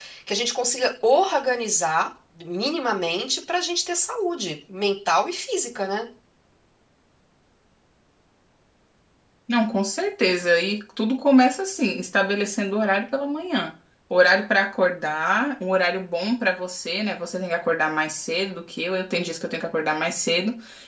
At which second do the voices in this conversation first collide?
none

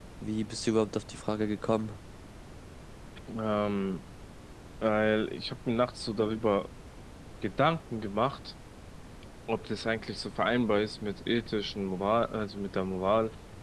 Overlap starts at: none

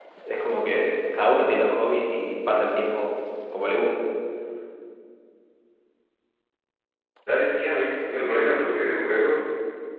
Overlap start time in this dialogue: none

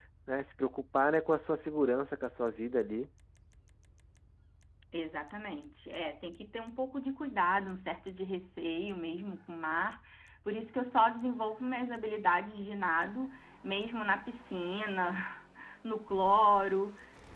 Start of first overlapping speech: none

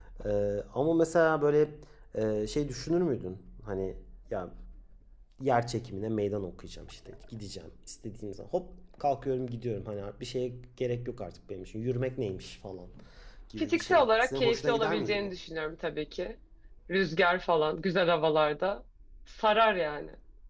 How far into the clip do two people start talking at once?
14 s

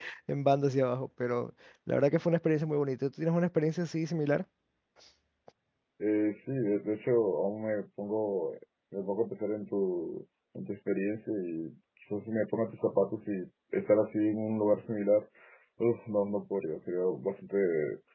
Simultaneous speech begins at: none

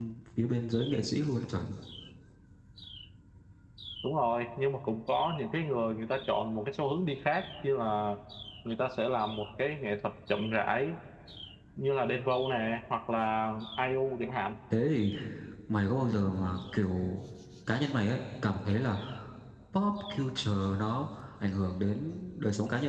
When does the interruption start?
none

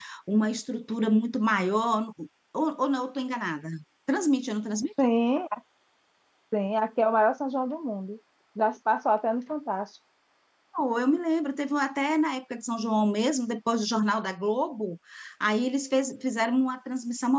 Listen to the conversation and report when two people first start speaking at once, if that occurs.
none

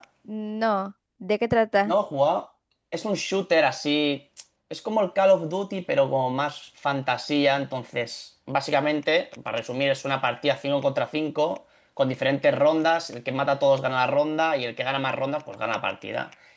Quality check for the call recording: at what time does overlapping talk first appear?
none

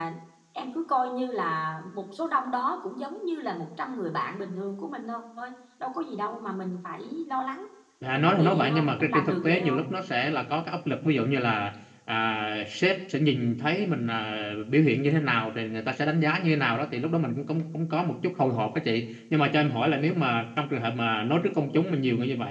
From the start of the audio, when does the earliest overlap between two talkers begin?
8 s

